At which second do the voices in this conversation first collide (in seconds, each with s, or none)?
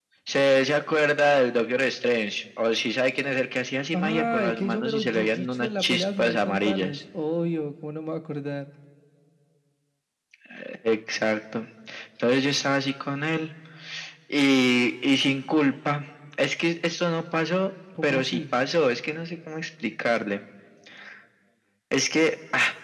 3.9 s